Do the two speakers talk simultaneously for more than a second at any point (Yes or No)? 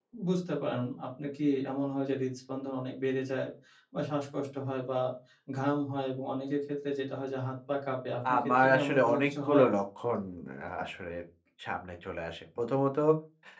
Yes